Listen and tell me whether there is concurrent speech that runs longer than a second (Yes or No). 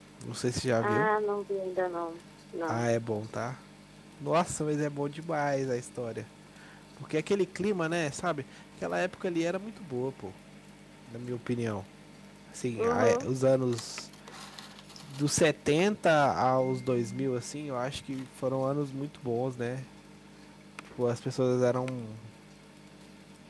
No